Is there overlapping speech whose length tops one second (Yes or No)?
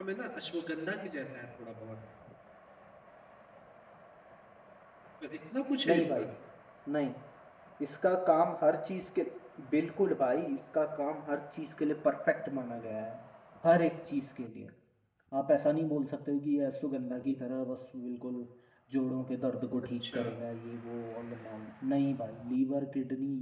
No